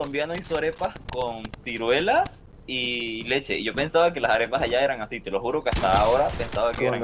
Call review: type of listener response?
taking over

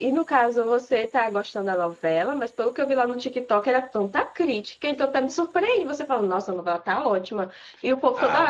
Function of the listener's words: taking over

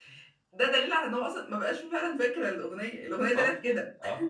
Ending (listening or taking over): taking over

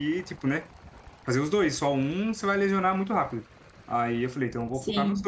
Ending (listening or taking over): listening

